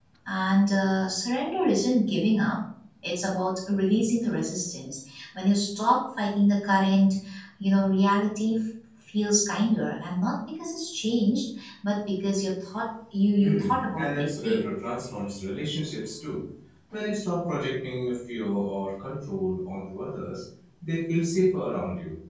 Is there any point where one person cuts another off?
Yes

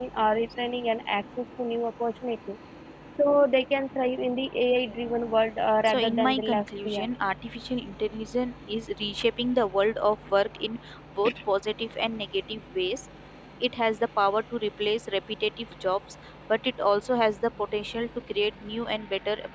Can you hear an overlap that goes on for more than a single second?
Yes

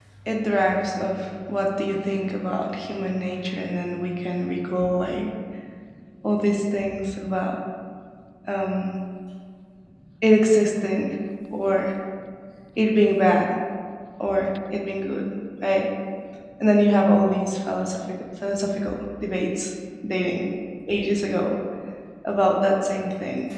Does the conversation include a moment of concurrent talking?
No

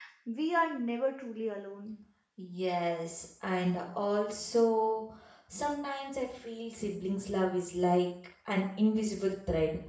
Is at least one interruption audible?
No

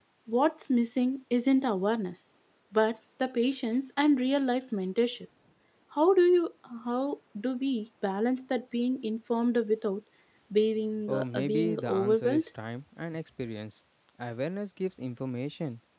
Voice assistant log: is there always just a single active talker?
No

